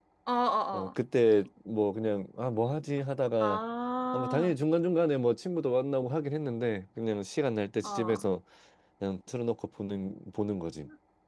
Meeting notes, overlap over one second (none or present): none